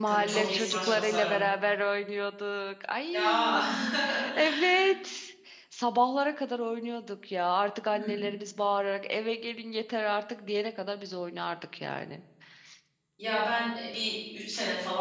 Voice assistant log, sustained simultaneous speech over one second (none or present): present